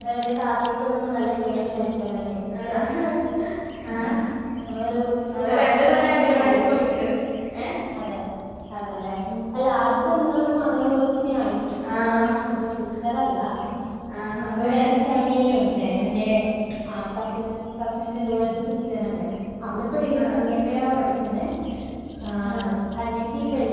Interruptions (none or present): present